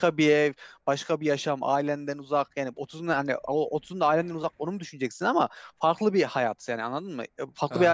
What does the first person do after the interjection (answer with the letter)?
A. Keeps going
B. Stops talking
A